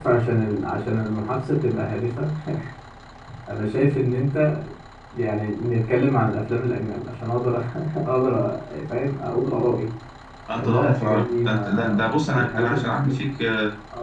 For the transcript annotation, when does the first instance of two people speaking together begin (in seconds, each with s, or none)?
10.5 s